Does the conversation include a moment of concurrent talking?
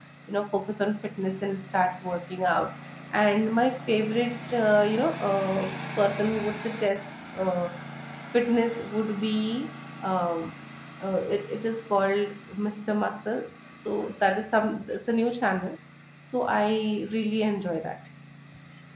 No

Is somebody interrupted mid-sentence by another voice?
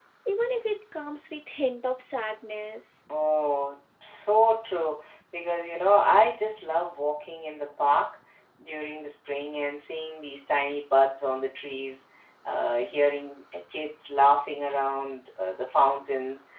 No

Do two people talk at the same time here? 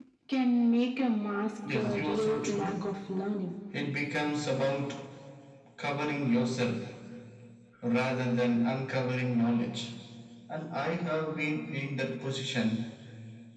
Yes, from 1.6 s

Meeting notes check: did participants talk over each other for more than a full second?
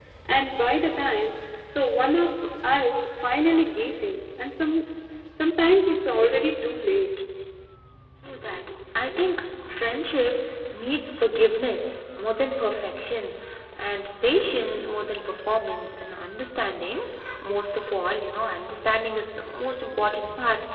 No

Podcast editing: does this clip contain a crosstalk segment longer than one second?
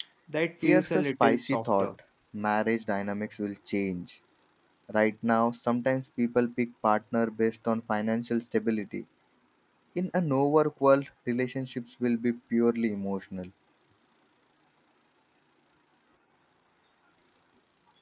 Yes, from 0.6 s

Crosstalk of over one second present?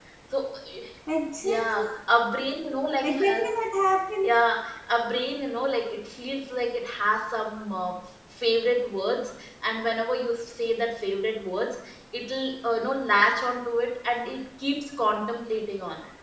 No

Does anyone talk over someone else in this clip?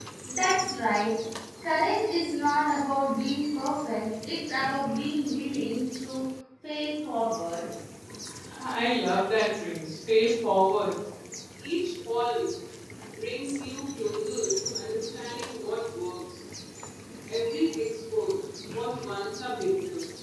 No

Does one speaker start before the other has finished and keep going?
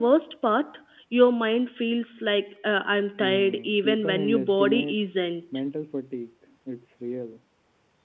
Yes, from 3.2 s

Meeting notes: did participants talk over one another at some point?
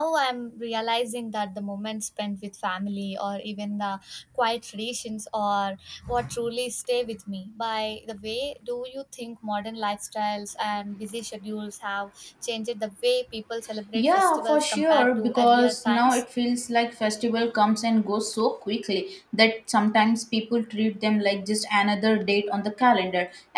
Yes, from 13.9 s

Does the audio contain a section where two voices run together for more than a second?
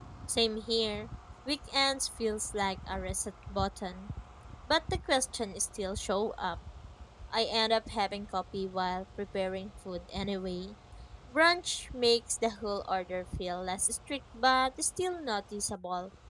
No

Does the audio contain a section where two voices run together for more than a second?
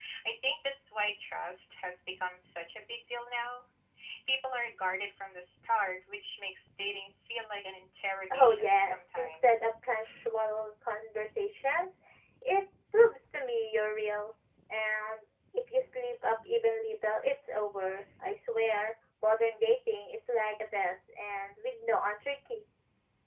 Yes, from 8.3 s

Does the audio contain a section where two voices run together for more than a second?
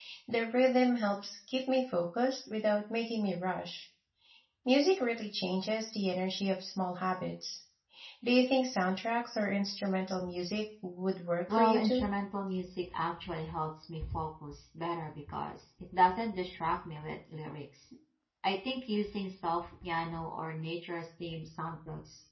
No

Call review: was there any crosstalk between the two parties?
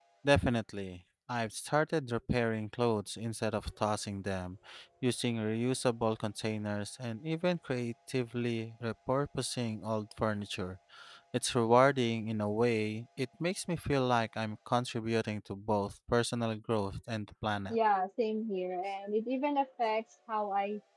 No

